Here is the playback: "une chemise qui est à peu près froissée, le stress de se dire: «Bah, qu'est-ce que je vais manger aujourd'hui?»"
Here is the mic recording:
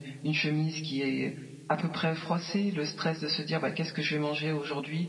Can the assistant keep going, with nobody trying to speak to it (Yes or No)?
Yes